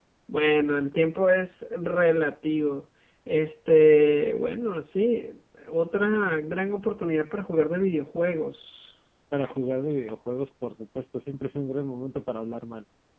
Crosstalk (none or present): none